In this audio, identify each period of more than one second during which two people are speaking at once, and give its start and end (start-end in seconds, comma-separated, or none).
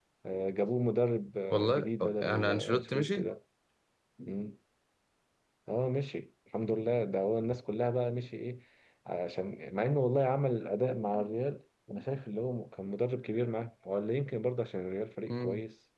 1.5-3.3